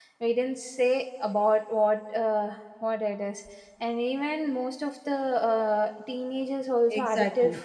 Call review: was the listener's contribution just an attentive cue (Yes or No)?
No